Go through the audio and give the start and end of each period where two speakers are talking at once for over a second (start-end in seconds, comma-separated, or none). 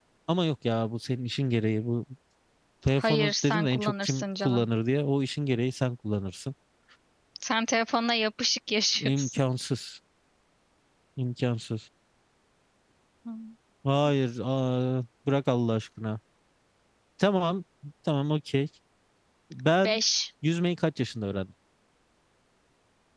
3.0-4.7